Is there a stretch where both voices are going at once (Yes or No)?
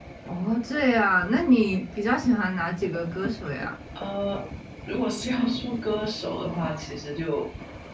No